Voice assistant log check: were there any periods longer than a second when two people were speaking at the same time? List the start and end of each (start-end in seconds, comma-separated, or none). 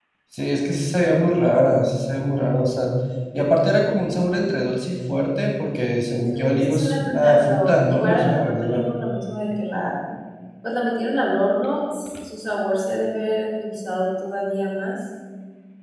6.3-8.8